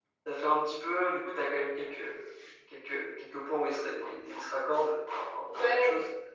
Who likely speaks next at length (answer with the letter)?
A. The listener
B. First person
A